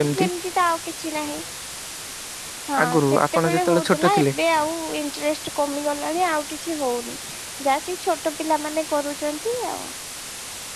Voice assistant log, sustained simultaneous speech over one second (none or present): present